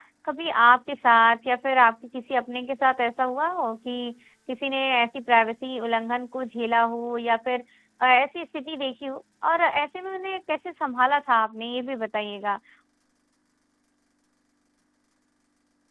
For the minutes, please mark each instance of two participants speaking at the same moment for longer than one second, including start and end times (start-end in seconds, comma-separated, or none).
none